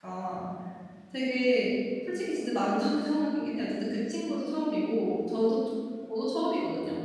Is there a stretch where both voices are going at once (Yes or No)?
No